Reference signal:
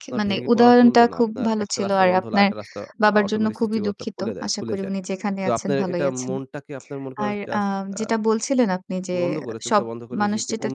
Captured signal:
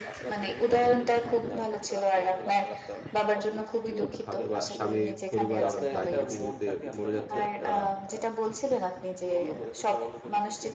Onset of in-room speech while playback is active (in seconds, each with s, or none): 4.2 s